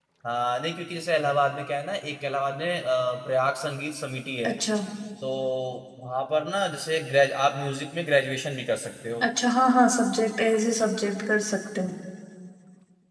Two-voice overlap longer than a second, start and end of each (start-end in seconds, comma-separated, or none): none